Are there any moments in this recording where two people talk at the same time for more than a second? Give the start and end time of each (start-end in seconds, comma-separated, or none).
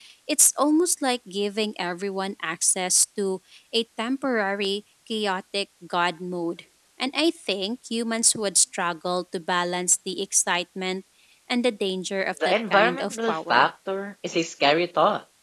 12.4-13.7